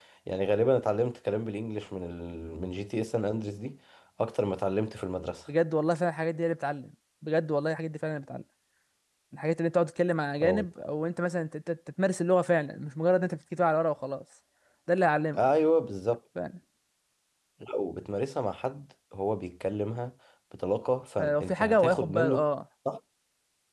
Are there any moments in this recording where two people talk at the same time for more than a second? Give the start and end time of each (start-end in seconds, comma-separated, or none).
21.2-22.4